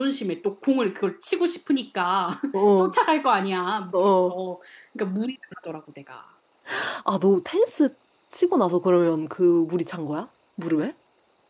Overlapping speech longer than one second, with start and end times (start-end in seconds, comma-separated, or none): none